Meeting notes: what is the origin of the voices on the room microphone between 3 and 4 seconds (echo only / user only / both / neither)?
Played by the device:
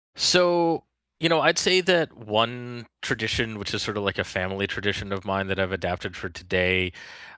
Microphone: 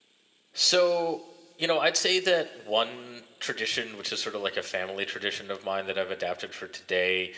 echo only